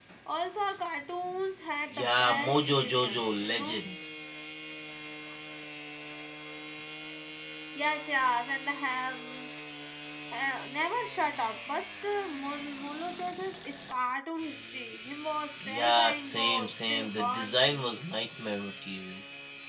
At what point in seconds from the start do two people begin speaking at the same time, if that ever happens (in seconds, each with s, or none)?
1.9 s